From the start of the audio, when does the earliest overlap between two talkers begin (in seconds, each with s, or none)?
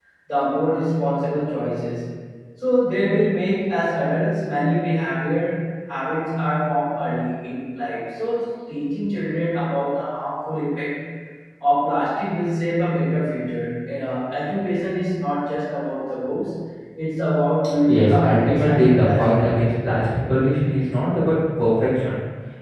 17.8 s